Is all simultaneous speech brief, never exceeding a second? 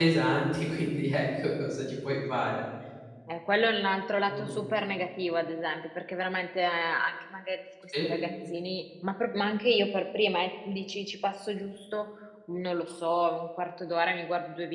Yes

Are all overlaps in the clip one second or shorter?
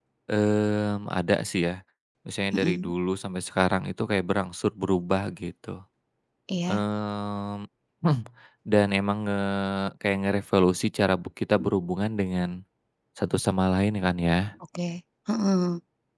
Yes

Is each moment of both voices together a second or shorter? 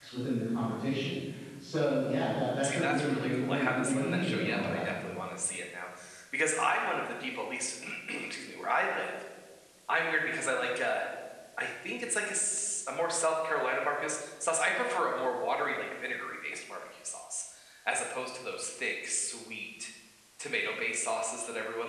No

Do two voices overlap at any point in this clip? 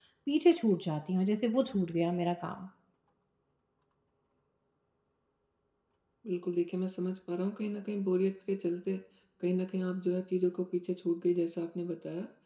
No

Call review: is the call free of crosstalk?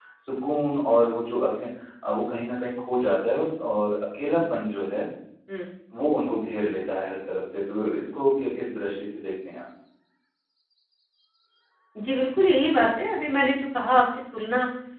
Yes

